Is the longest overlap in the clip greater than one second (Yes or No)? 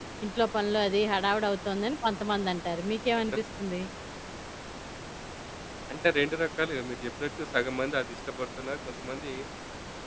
No